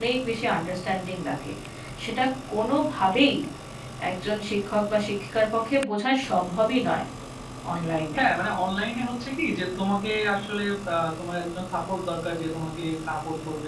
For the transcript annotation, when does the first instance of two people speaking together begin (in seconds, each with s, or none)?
none